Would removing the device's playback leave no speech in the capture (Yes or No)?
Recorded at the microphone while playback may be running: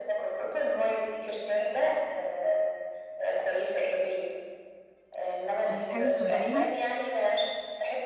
No